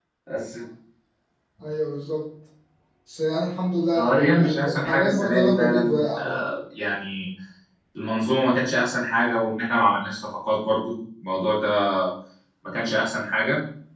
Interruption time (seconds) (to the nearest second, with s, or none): 4 s